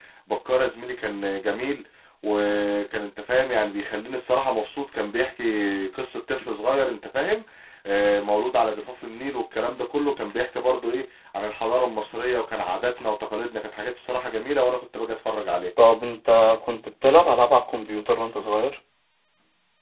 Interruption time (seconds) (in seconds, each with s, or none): none